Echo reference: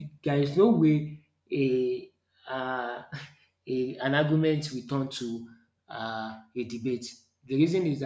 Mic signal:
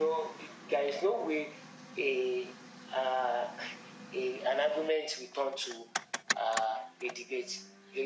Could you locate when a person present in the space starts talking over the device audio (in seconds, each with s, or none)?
none